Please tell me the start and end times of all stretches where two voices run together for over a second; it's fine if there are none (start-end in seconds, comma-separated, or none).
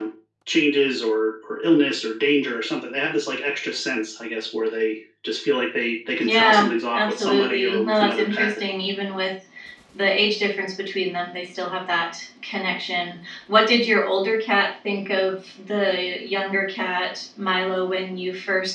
6.2-8.6